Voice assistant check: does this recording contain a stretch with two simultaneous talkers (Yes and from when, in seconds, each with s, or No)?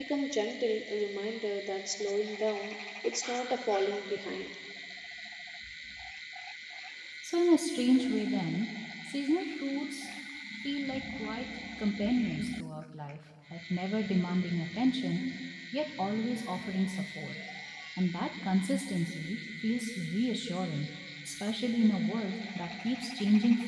No